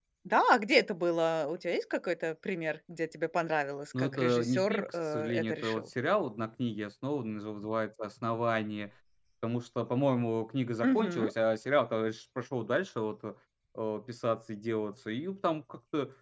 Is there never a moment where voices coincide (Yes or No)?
No